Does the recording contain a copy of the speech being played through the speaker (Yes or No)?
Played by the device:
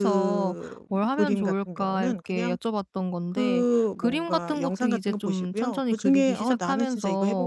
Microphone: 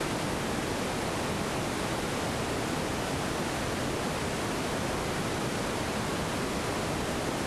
No